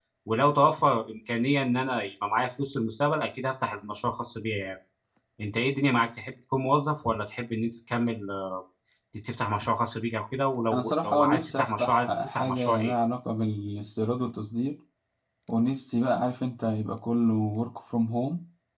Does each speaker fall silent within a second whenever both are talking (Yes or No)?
No